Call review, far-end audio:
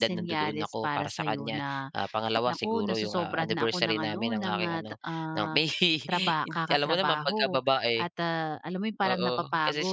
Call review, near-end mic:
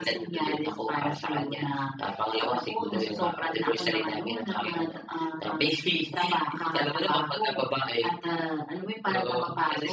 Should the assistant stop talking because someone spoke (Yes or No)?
No